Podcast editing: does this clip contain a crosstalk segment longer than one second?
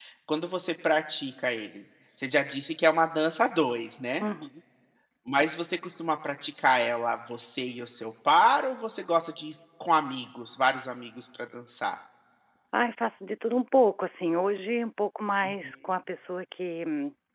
No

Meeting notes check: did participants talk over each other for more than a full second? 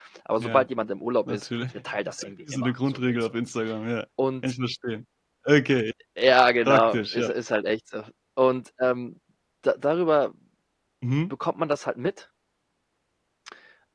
Yes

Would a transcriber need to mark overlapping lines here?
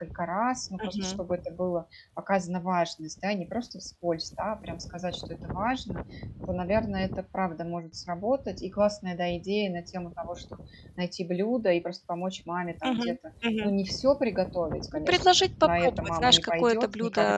Yes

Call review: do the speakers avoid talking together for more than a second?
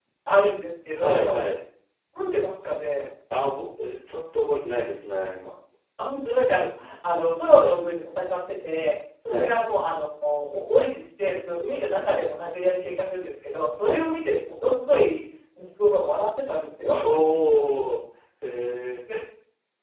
Yes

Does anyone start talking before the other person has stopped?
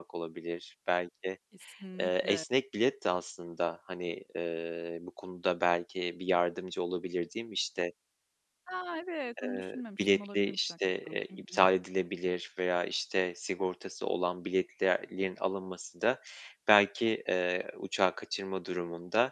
Yes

